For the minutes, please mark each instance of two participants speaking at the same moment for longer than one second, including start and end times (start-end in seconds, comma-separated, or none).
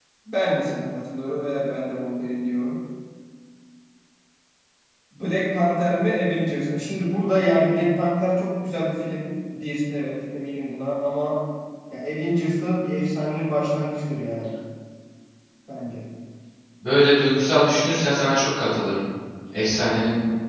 none